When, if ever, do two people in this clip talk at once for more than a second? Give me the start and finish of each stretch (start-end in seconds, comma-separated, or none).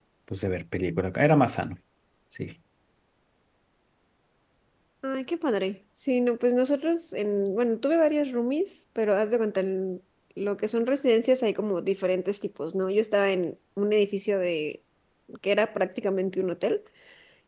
none